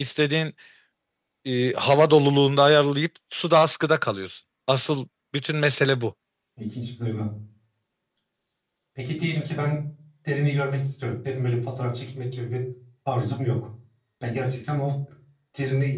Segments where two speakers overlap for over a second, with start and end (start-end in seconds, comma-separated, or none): none